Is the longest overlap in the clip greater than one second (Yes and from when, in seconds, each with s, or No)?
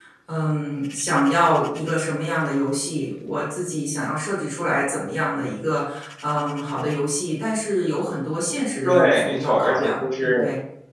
Yes, from 8.8 s